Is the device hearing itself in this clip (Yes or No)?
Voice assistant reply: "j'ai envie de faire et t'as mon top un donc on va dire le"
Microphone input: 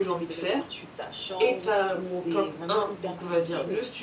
Yes